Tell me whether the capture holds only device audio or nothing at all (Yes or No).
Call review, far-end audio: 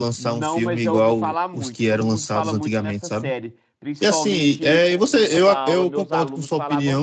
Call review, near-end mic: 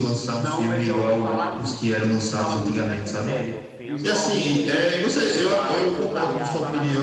No